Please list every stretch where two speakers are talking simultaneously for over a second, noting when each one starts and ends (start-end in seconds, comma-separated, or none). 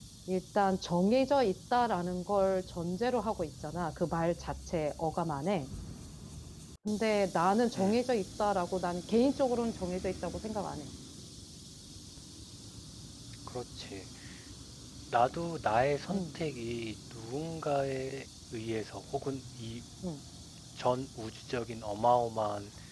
none